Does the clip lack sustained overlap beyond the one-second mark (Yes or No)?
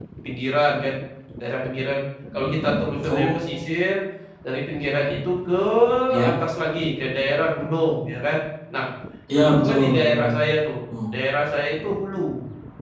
No